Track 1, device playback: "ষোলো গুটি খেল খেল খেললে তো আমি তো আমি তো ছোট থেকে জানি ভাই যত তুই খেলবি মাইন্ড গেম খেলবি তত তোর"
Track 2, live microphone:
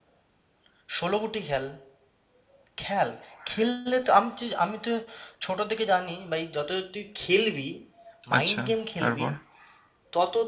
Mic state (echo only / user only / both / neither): both